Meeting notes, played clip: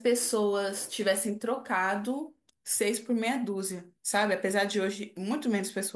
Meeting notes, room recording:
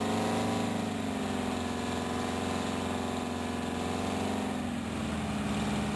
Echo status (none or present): none